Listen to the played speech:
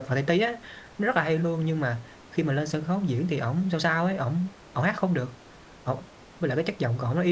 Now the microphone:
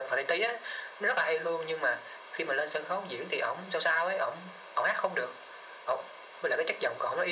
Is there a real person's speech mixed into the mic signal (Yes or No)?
No